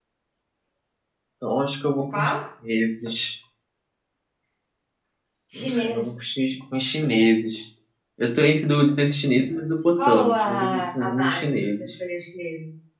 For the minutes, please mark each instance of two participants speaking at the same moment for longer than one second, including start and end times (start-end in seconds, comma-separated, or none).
10.0-11.9